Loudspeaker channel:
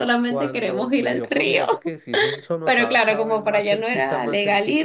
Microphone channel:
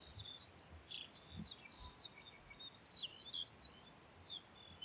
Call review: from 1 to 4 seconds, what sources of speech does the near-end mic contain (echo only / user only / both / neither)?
neither